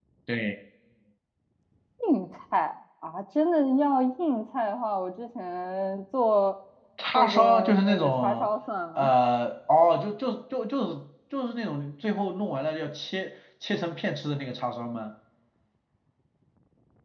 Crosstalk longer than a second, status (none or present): present